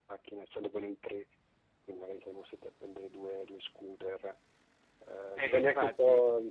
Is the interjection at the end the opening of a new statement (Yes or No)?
No